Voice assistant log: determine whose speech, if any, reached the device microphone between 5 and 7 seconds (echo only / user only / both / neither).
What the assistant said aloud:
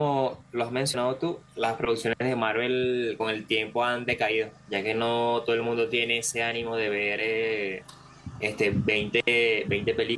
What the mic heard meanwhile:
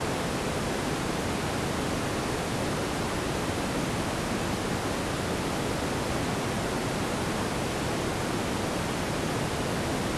neither